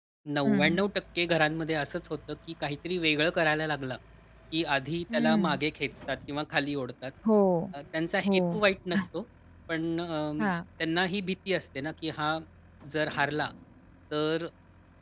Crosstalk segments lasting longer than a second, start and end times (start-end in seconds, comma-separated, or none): none